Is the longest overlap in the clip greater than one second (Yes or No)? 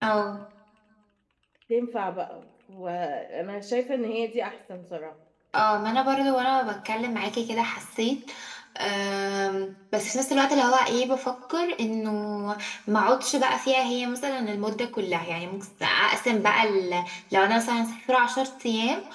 No